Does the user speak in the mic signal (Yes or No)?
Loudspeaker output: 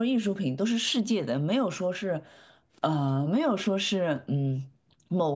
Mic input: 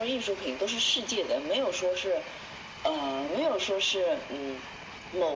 No